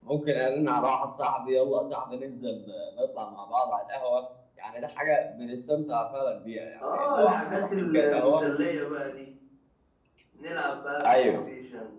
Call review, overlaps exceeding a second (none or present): present